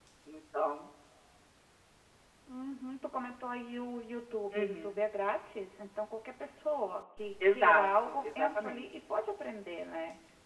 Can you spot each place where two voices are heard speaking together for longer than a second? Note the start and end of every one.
7.5-8.8

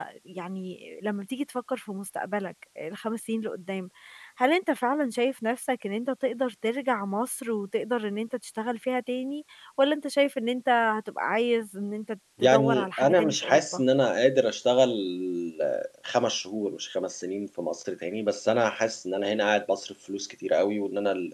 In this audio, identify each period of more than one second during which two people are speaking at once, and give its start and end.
12.4-13.8

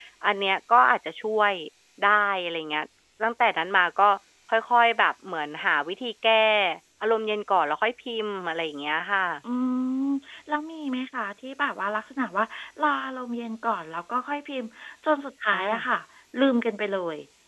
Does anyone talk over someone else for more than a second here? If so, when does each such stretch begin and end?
none

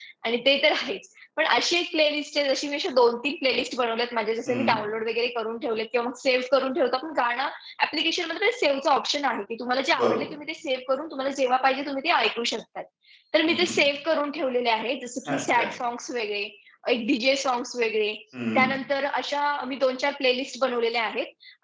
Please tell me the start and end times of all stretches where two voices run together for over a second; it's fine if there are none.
none

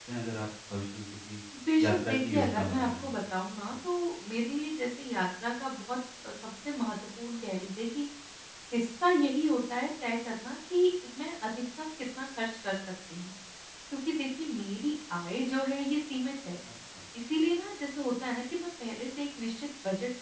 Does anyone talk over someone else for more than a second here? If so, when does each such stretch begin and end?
1.8-3.1

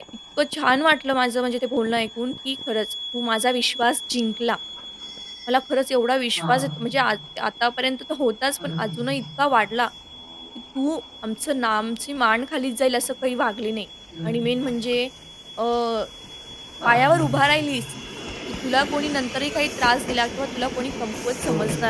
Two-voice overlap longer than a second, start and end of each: none

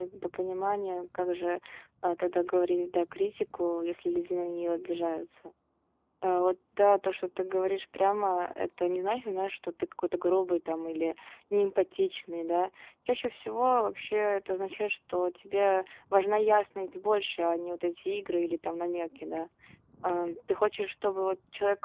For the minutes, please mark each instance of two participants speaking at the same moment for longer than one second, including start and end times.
none

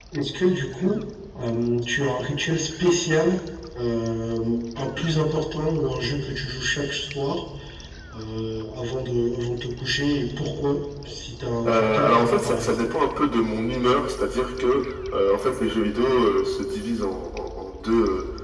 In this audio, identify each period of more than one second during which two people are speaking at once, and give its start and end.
11.6-12.9

